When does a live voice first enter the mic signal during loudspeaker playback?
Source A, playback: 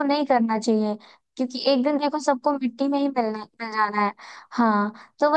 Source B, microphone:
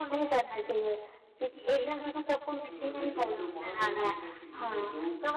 2.7 s

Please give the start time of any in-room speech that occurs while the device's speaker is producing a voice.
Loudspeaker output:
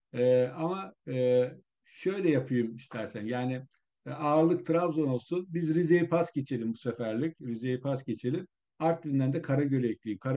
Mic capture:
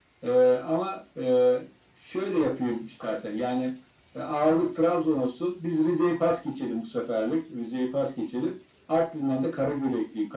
none

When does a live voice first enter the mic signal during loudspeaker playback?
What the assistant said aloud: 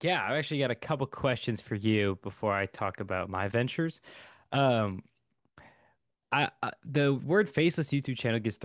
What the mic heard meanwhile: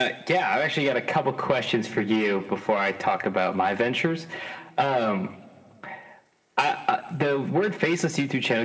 none

